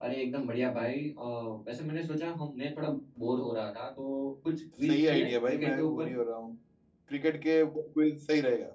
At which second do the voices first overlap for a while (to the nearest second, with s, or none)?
5 s